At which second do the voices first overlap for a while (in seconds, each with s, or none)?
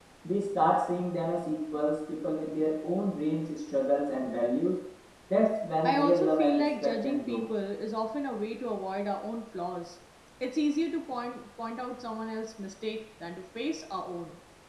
5.8 s